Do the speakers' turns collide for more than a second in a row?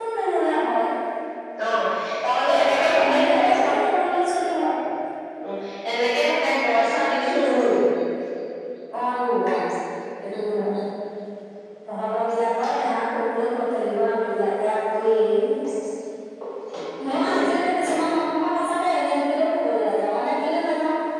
Yes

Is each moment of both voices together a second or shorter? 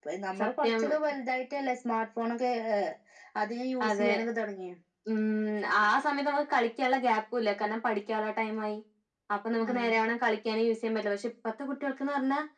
Yes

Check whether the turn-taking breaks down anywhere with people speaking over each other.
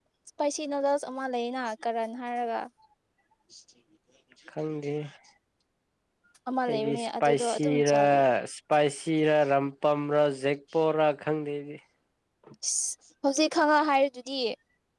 Yes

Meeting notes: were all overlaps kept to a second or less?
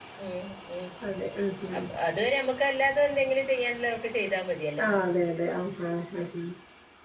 Yes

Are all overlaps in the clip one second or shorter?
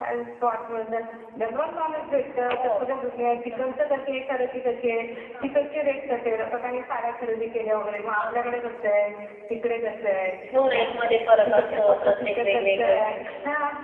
No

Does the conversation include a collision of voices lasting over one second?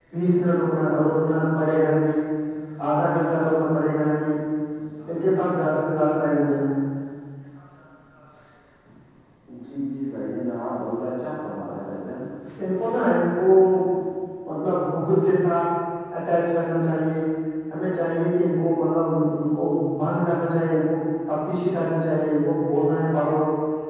No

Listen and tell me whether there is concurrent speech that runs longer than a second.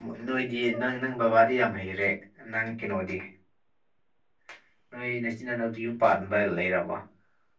No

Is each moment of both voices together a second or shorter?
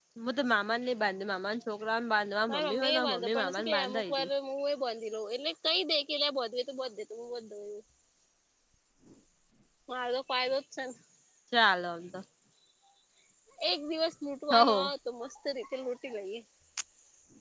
No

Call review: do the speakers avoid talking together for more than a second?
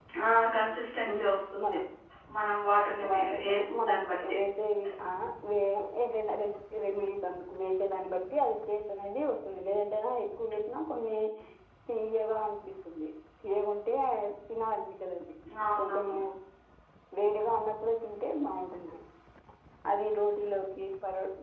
No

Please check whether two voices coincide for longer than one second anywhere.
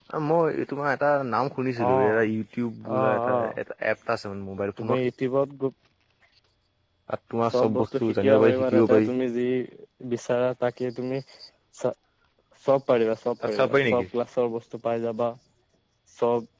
Yes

